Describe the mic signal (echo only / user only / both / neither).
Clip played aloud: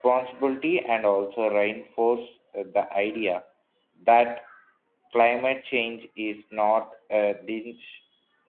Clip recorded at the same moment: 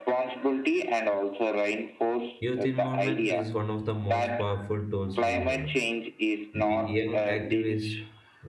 both